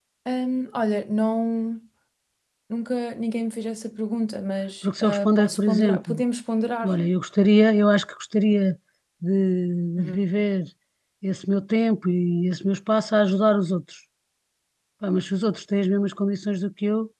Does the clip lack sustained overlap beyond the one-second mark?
No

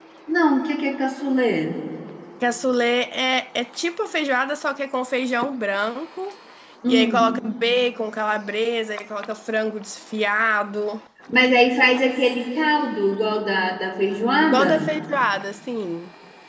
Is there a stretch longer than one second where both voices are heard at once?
No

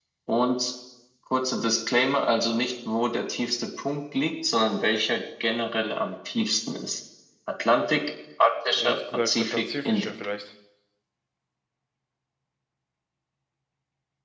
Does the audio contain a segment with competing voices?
Yes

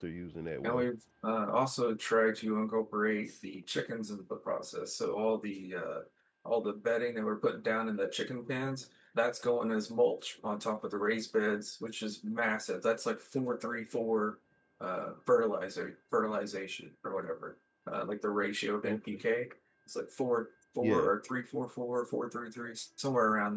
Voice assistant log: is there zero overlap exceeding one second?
Yes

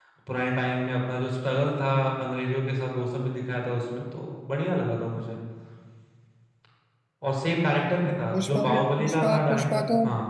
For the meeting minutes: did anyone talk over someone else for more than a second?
Yes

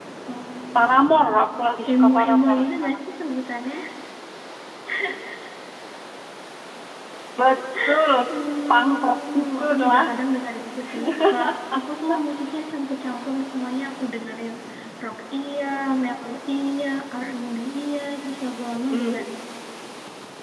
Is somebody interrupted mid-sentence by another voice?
Yes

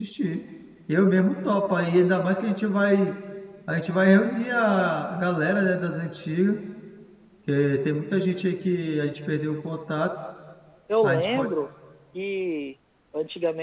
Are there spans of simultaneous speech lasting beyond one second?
No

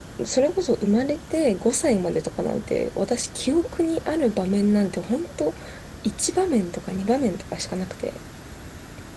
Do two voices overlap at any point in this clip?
No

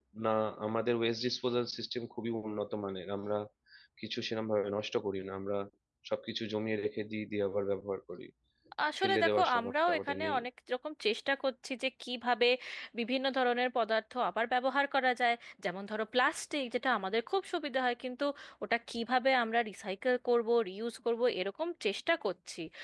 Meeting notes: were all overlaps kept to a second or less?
No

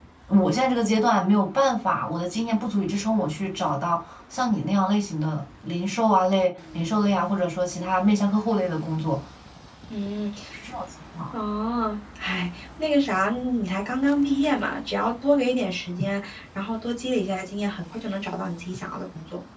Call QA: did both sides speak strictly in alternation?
Yes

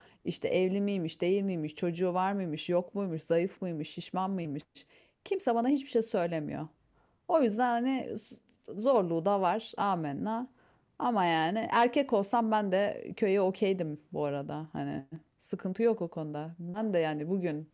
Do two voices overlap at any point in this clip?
No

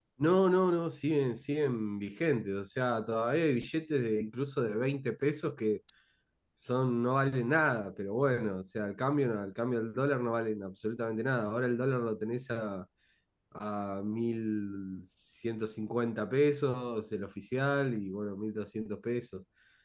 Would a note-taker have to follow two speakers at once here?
No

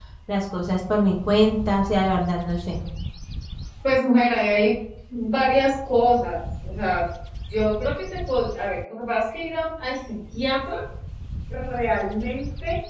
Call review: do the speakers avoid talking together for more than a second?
Yes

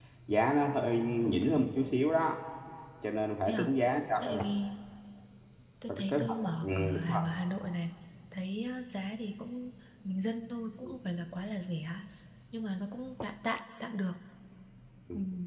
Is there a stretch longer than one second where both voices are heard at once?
Yes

